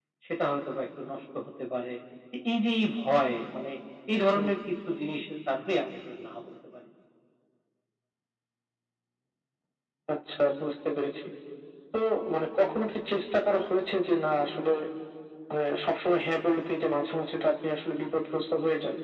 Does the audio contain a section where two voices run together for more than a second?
No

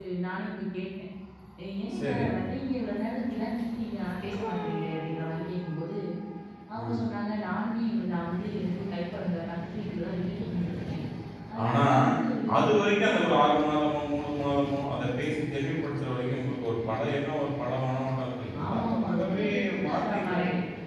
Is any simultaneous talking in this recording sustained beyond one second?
Yes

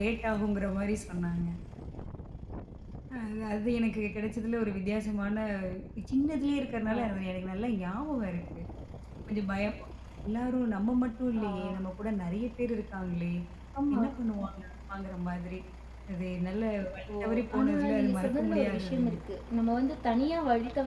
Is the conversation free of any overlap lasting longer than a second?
No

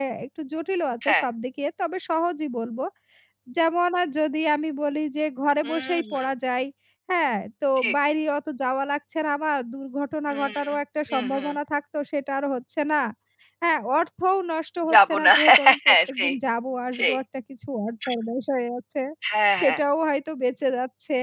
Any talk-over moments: Yes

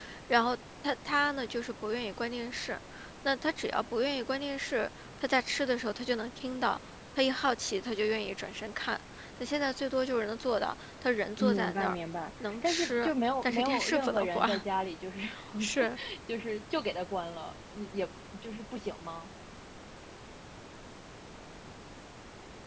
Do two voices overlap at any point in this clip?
Yes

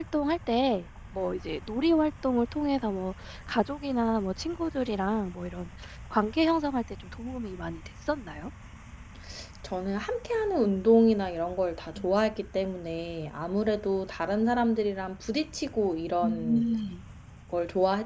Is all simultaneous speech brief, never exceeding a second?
Yes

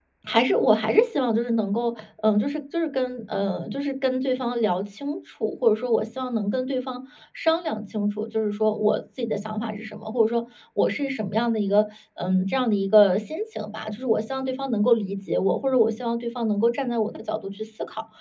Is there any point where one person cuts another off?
No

